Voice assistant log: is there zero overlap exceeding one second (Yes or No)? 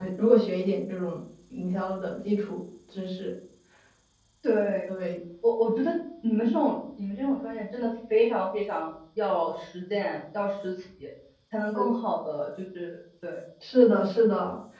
Yes